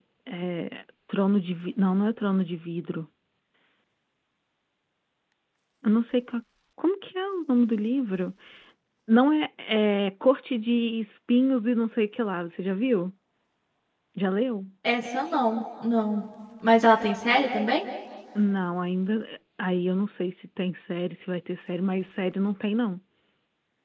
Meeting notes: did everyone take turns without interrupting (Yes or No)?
Yes